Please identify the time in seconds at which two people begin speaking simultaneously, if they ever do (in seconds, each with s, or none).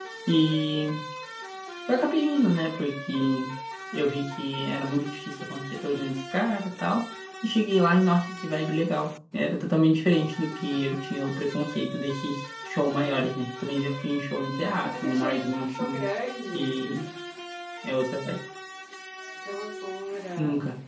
14.6 s